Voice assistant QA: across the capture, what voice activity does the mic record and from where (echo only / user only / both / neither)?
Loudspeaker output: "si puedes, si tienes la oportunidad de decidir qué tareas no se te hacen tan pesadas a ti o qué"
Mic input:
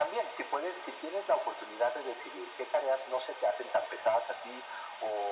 echo only